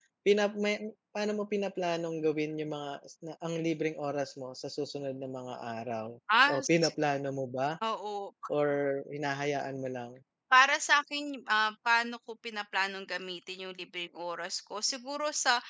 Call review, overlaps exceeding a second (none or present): none